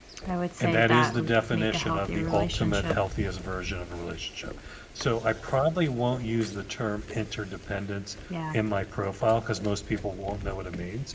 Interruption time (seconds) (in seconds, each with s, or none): 0.6 s